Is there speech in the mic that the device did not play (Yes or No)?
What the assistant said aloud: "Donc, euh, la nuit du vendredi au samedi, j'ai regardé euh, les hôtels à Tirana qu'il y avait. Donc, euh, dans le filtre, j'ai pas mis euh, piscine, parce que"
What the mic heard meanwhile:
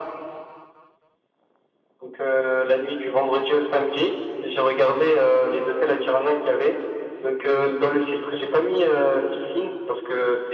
No